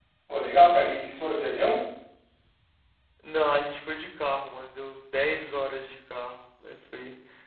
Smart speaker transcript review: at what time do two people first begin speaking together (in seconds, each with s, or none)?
none